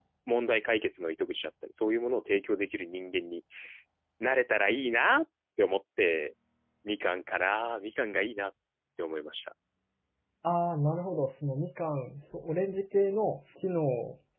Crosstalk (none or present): none